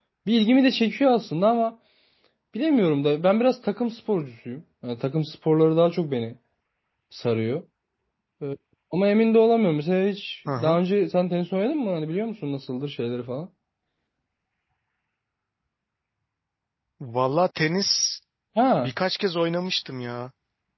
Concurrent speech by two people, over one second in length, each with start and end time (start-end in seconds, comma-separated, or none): none